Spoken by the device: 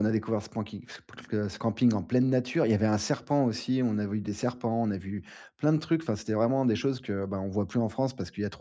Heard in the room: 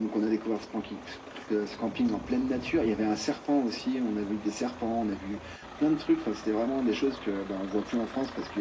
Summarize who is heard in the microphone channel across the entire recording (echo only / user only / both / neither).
echo only